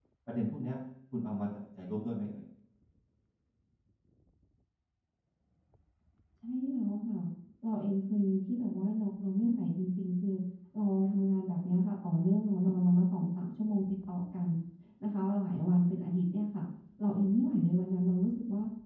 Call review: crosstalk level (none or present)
none